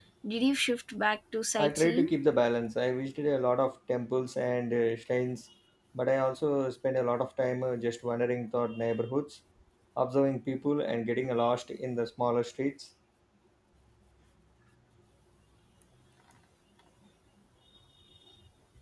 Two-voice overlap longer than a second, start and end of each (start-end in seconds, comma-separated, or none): none